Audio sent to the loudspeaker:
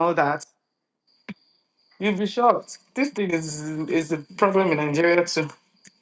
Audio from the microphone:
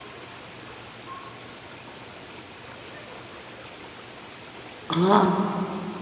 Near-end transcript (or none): Ah,